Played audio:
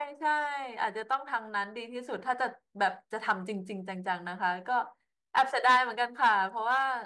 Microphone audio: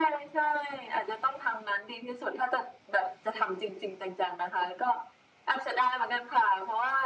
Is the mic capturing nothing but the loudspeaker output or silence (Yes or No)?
Yes